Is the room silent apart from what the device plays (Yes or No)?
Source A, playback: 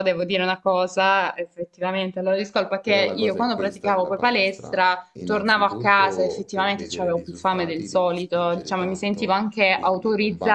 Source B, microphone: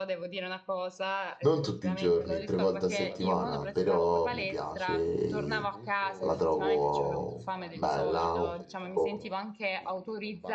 No